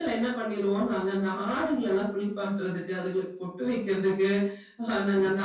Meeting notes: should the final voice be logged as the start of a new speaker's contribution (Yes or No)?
No